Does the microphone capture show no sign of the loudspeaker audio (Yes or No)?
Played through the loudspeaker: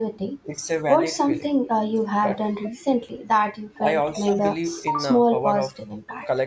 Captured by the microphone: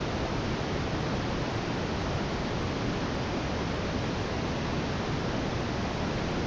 Yes